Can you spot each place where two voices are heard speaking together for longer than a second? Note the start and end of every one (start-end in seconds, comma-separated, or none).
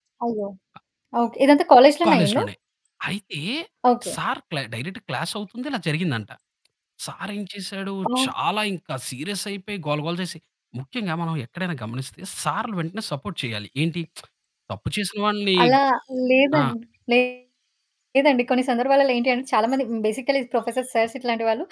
none